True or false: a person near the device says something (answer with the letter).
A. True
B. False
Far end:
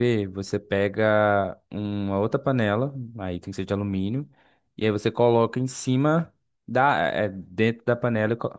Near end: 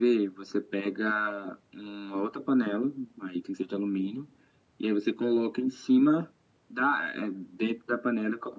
B